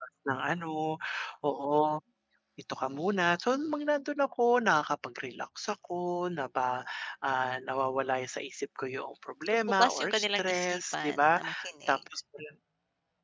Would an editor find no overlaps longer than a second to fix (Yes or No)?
No